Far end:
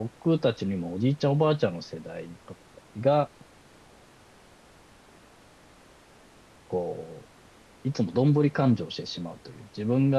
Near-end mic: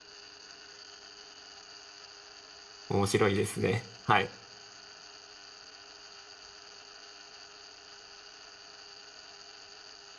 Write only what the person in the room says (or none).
面白いですね。はい。